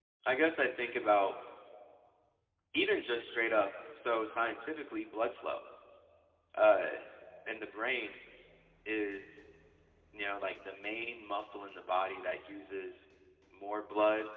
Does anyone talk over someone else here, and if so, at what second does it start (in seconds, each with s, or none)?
none